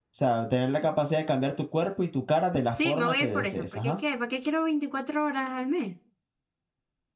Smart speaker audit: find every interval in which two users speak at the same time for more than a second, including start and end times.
2.7-4.0

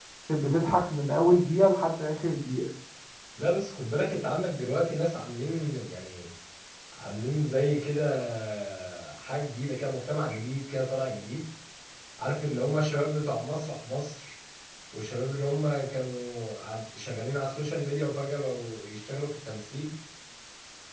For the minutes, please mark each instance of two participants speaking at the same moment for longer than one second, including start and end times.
none

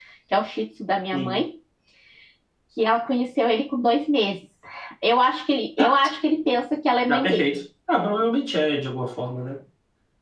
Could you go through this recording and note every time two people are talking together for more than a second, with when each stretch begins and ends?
none

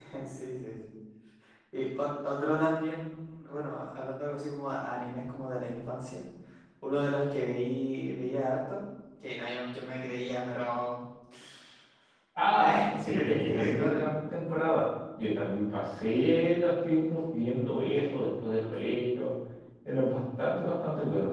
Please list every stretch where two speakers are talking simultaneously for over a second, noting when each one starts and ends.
12.6-14.1

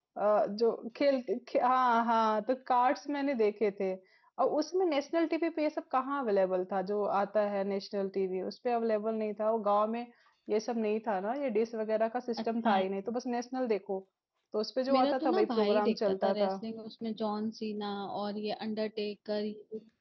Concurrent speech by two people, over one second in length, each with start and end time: 14.9-16.5

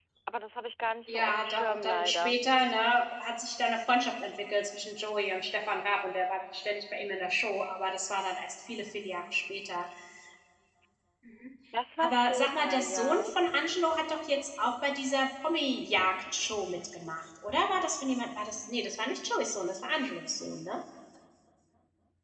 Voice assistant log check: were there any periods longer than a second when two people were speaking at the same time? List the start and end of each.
1.1-2.4, 12.0-13.3

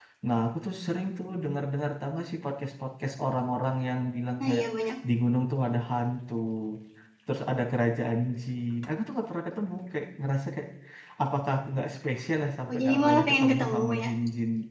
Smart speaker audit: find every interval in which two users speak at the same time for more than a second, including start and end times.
12.7-14.1

